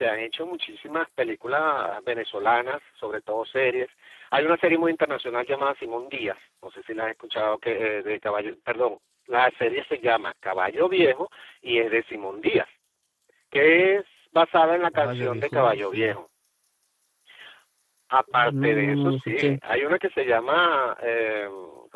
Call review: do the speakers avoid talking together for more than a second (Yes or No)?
No